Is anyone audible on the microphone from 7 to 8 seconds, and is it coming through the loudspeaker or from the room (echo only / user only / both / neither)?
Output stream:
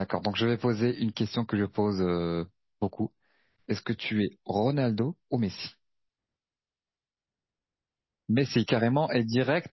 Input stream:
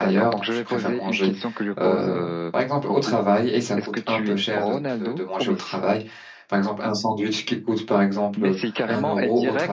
user only